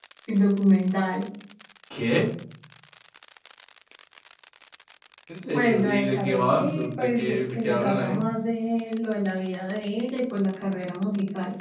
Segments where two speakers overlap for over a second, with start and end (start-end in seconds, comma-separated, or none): 5.5-8.2